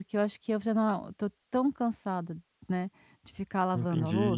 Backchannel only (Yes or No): No